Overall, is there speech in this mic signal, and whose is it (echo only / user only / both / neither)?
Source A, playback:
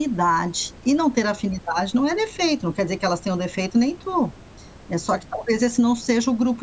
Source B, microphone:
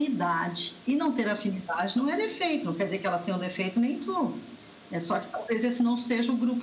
echo only